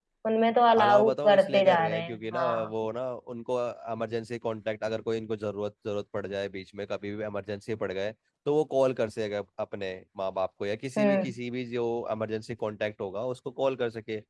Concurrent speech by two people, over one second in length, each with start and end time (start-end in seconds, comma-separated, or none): 0.8-2.7